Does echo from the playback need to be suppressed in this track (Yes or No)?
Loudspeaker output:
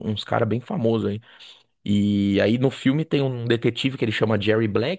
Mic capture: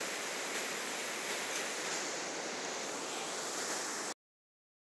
No